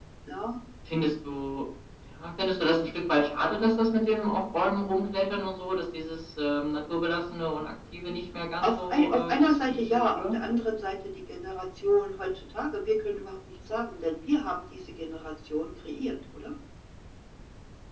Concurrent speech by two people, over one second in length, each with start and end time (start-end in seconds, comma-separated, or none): 8.6-10.3